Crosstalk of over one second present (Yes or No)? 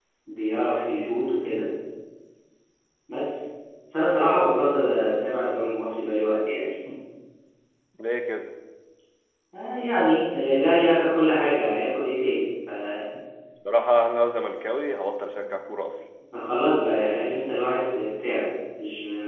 No